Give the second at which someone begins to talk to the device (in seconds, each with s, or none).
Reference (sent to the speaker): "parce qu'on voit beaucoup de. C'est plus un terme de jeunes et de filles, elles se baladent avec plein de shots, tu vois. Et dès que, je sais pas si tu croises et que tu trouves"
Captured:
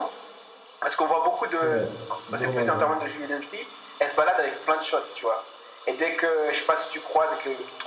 1.6 s